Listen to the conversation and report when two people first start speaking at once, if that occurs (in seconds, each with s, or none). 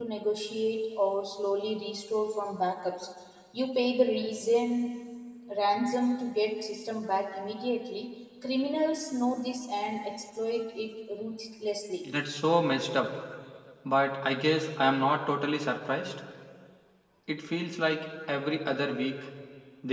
none